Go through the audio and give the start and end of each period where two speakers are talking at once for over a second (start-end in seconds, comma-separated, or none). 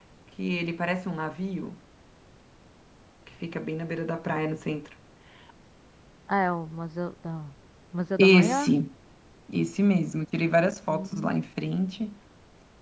none